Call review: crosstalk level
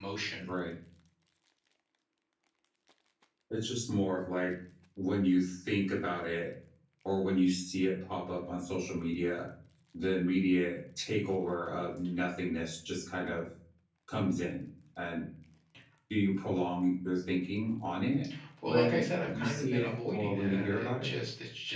present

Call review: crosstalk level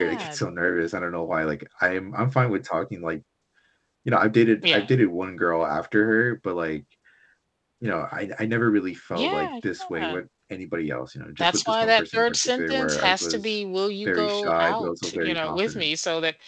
present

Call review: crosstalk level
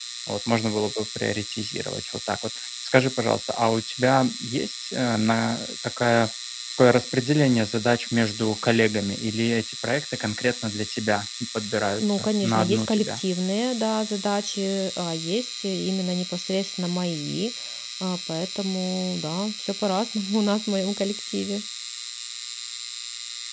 present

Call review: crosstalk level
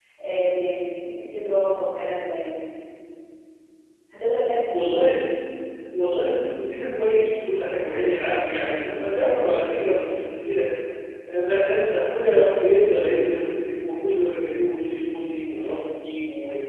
none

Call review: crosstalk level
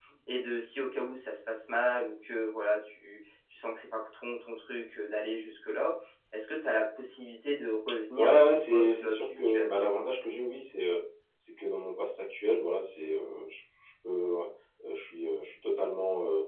present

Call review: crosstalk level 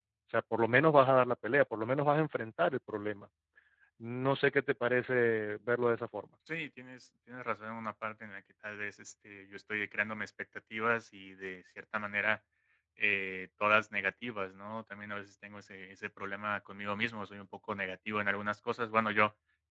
none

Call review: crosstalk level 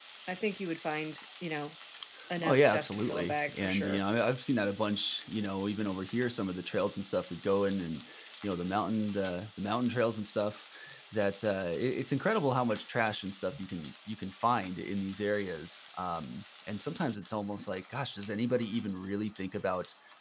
present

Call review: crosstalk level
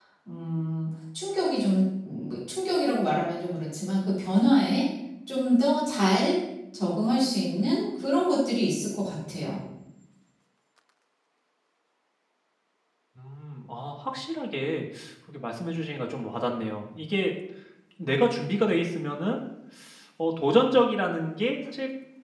none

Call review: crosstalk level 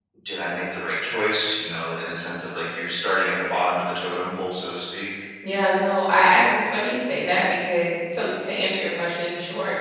none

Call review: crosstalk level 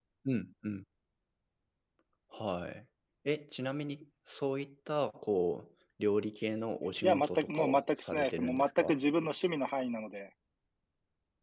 present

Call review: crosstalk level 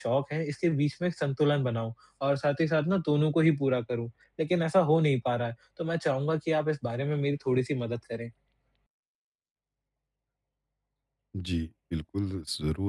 none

